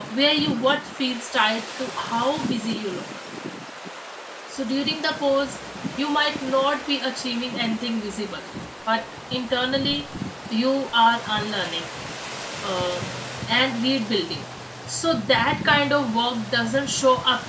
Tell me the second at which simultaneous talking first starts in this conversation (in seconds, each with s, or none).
none